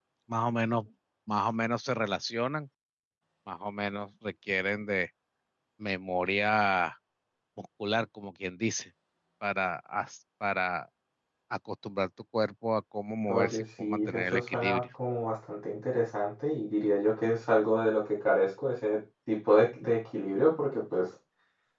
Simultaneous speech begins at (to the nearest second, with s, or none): 13 s